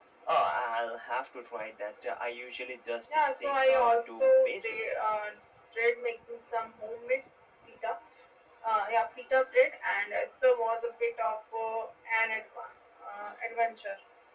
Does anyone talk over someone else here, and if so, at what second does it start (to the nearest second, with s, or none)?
3 s